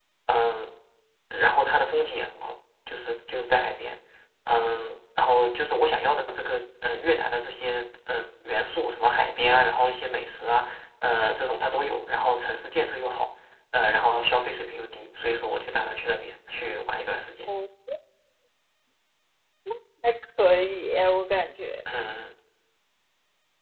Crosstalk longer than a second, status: none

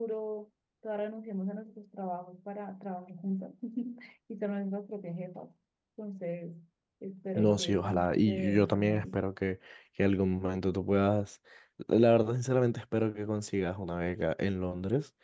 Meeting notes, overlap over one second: present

